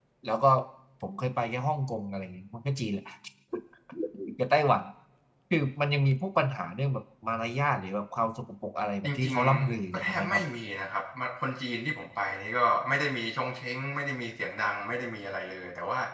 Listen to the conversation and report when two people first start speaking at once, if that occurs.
9.0 s

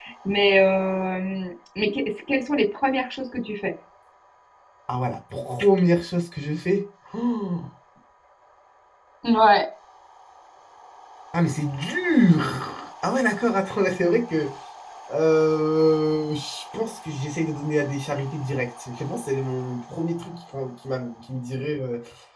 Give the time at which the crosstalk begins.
none

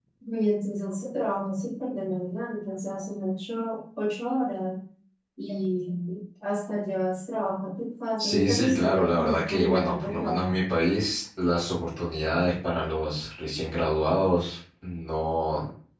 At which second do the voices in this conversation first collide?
8.2 s

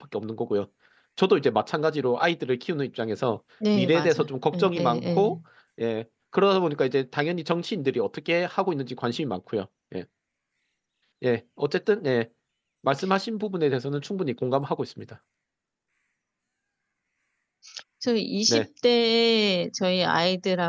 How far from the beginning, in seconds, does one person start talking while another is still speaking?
3.6 s

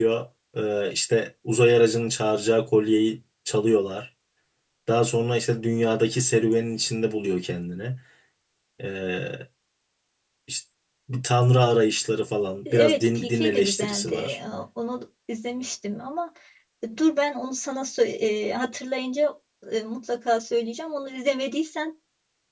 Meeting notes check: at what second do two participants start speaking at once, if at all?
12.6 s

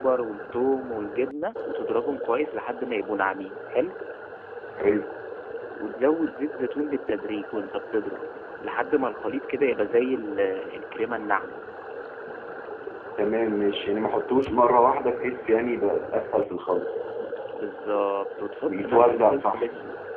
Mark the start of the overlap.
18.7 s

